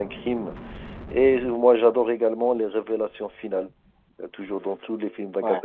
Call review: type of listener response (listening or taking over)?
listening